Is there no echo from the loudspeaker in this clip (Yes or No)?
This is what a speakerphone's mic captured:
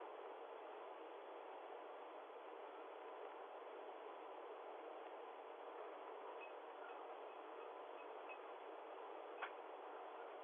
Yes